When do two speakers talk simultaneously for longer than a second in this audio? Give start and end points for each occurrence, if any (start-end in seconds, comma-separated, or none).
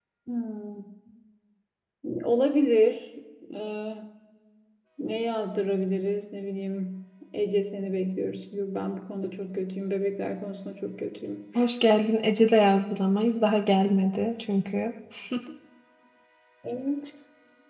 none